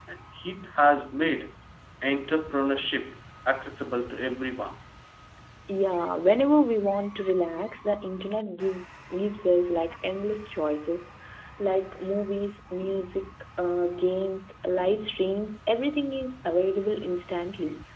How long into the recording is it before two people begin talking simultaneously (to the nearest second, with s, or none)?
none